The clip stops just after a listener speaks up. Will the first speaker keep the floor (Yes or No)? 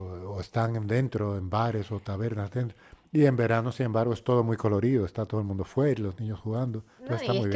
No